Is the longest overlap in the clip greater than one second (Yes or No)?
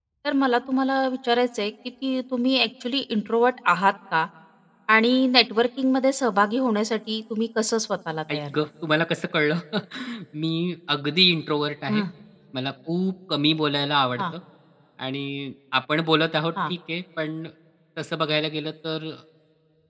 No